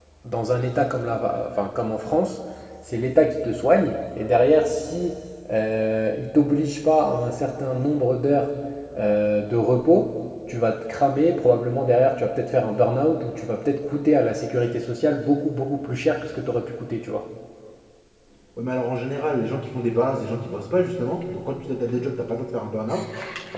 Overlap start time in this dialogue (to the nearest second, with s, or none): none